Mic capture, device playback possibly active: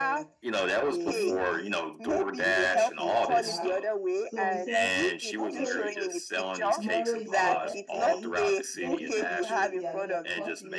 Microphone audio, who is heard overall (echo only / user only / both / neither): both